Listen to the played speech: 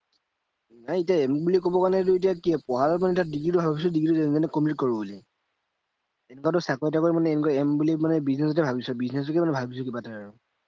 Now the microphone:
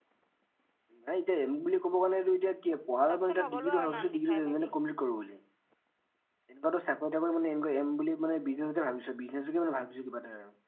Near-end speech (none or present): present